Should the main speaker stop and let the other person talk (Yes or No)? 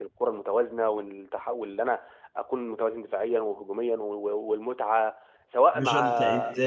Yes